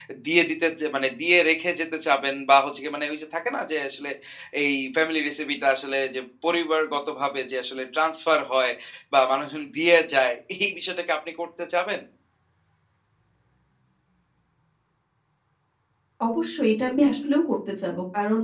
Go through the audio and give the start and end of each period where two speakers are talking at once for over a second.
none

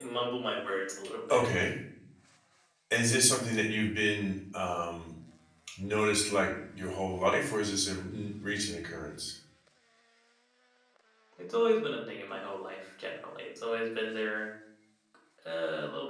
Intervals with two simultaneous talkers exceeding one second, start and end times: none

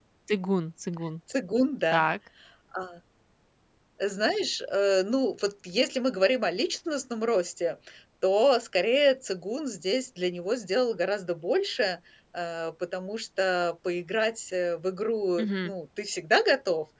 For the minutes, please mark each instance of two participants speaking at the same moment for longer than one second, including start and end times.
none

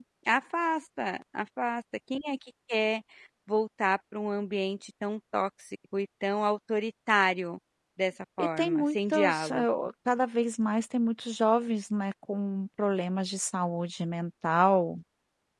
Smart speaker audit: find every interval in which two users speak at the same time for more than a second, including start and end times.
8.4-9.6

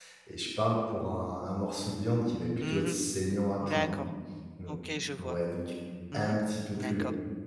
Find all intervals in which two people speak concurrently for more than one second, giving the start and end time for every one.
none

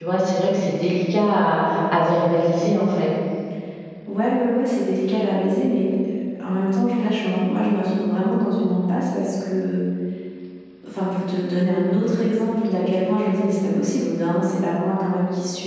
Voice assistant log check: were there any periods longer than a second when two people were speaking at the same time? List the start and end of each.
none

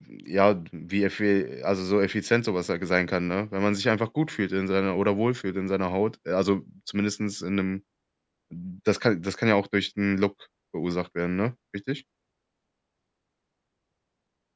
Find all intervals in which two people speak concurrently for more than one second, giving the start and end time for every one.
none

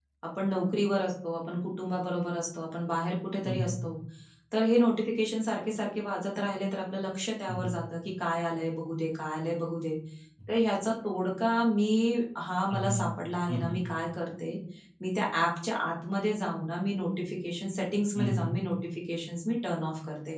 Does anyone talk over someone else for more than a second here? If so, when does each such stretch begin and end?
none

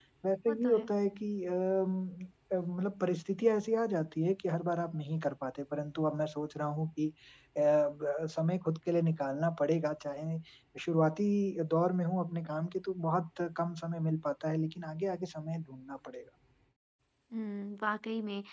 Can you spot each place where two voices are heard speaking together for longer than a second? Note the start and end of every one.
none

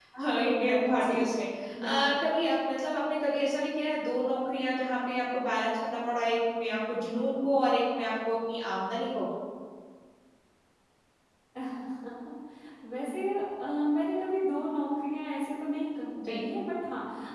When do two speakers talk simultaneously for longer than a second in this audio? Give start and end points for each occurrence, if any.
none

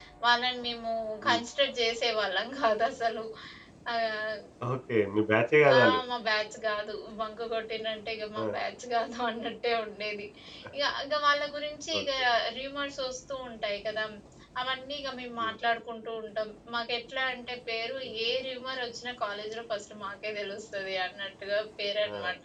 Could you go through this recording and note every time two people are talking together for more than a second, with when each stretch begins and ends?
none

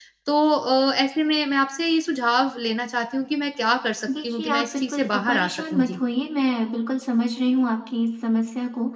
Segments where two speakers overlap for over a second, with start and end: 4.2-6.0

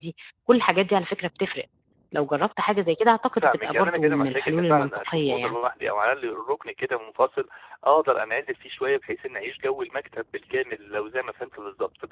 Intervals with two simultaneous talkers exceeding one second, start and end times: 3.3-5.5

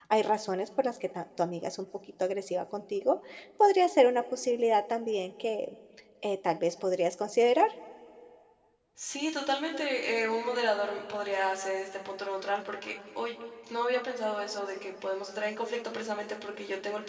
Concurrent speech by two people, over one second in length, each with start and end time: none

